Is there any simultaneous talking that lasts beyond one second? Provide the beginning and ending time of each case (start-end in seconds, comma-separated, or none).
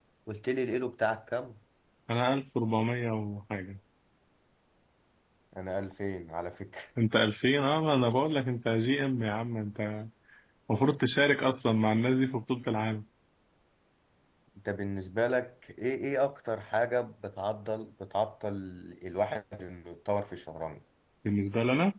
none